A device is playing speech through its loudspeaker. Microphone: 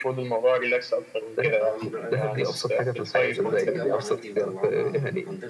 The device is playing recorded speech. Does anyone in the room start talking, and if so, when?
1.6 s

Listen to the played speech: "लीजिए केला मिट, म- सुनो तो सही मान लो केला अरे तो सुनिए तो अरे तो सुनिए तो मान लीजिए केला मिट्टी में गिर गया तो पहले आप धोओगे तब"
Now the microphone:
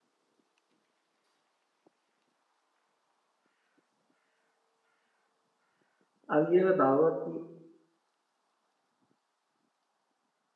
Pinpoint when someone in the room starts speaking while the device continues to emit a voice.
6.4 s

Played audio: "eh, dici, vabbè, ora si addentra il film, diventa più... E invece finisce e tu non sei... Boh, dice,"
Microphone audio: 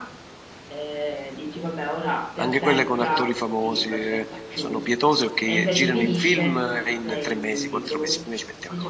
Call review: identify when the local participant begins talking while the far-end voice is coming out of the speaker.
2.3 s

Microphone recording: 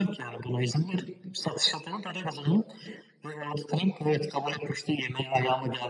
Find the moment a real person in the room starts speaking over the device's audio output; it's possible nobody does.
none

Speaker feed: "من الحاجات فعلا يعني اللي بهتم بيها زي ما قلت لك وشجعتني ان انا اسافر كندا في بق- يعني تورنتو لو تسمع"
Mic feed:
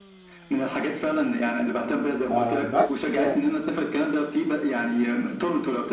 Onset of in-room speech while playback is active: 2.3 s

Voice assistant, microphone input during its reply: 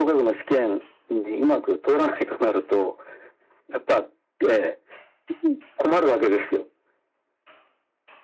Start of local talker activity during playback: none

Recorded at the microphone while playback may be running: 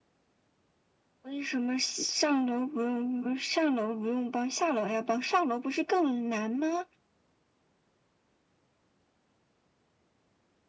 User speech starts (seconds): none

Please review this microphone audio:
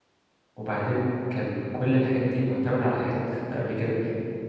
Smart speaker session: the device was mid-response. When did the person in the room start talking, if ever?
0.5 s

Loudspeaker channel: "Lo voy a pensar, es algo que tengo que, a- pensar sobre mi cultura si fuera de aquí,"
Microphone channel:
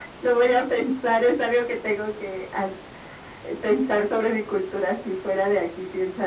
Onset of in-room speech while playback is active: none

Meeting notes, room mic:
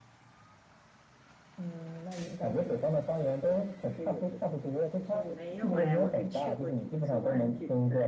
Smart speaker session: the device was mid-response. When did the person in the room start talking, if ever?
5.2 s

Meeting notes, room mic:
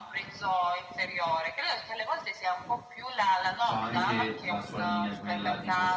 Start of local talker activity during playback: 3.6 s

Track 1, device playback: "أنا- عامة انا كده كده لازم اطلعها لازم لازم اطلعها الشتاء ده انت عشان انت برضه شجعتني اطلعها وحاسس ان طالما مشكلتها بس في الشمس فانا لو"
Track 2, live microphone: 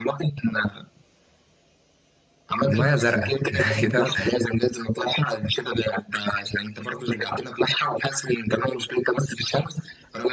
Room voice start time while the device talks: 2.7 s

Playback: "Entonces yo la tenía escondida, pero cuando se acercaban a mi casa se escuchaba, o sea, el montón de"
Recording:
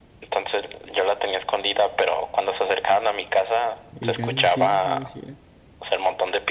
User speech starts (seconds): 3.9 s

